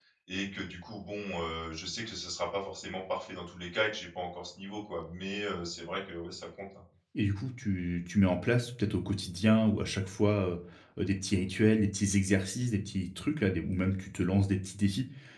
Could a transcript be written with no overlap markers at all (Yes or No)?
Yes